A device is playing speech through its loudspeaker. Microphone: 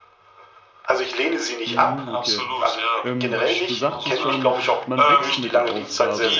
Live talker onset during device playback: 2 s

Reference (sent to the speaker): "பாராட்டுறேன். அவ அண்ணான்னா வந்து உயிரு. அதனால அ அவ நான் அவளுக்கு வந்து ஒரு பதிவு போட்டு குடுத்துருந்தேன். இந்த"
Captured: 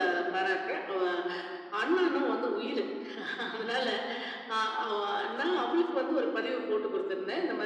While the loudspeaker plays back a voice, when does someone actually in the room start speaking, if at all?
none

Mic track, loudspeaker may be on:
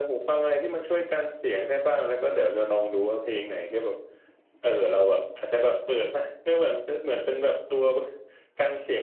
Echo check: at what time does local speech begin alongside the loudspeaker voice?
none

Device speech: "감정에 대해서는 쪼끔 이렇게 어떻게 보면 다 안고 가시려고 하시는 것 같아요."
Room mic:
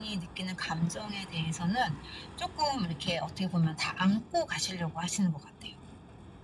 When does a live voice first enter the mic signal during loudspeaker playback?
none

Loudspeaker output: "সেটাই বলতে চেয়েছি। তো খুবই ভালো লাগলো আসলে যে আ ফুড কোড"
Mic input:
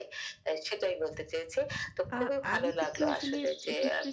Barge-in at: 2 s

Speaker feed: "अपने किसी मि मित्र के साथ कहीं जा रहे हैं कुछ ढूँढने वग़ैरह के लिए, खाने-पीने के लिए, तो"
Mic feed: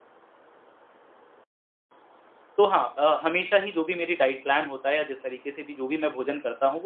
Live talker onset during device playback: 3 s

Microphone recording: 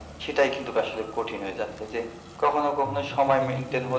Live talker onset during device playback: 3 s

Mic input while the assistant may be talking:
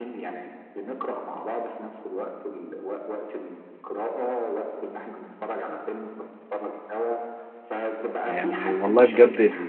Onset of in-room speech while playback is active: 8 s

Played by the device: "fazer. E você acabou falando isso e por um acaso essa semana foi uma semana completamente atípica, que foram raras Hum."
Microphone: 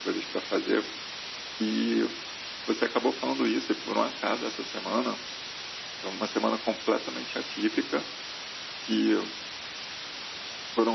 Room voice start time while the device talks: none

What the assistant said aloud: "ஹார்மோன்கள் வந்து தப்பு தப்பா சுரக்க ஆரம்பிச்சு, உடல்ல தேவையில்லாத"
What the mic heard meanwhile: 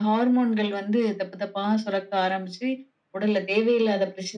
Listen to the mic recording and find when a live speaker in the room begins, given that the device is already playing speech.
none

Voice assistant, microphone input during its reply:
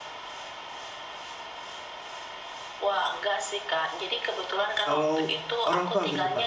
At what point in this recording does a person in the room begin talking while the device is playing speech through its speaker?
5 s

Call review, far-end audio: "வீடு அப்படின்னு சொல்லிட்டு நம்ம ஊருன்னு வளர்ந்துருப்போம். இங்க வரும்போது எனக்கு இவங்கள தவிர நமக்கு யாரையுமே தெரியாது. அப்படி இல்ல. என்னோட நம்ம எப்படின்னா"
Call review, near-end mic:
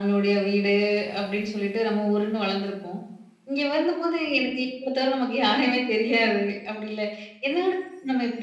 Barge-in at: none

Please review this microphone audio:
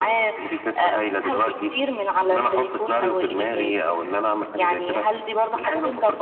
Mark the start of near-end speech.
none

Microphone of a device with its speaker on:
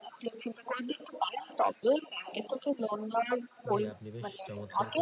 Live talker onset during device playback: 4 s

